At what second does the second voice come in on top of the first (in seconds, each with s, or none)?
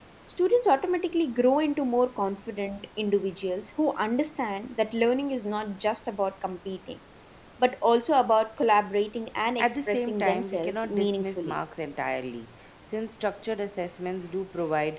9.6 s